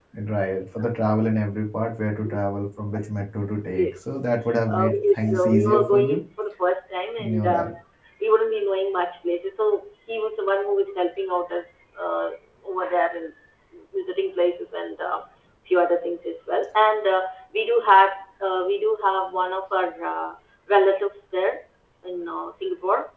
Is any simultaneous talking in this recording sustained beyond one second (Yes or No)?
Yes